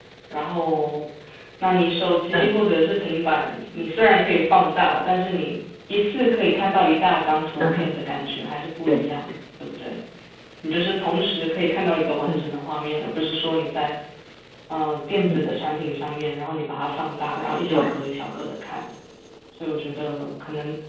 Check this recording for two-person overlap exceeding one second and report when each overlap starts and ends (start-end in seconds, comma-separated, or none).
none